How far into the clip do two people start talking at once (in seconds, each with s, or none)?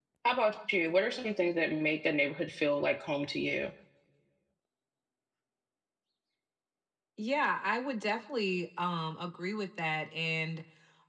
none